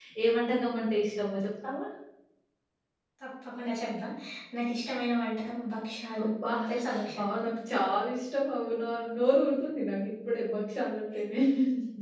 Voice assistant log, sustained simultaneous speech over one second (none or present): none